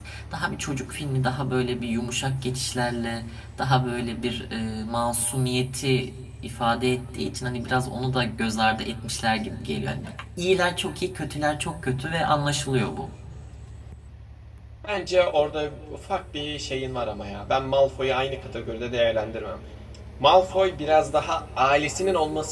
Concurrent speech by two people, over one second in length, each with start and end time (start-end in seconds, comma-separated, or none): none